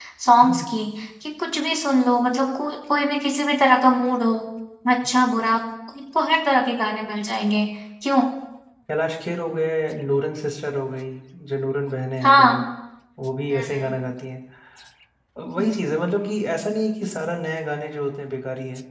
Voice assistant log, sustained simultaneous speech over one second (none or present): none